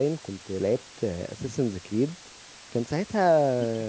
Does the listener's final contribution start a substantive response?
No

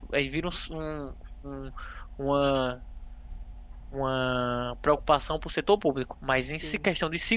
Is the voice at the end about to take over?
No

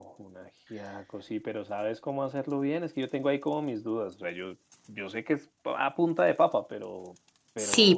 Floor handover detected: Yes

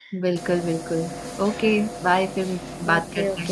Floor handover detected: Yes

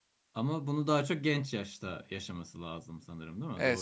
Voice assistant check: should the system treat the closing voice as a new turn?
Yes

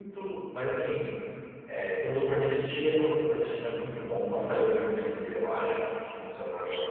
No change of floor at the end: No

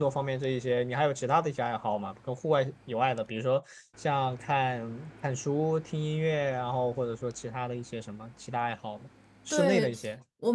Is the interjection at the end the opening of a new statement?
Yes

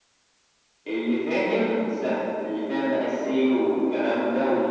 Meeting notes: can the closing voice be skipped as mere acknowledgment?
Yes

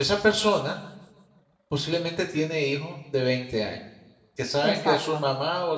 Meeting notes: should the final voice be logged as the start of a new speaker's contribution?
No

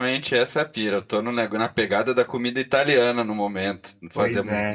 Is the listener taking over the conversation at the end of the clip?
No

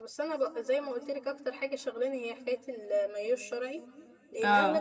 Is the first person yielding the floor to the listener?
No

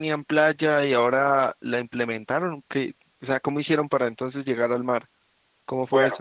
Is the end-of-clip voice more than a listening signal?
Yes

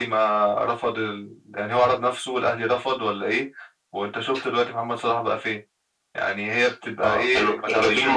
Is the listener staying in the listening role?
No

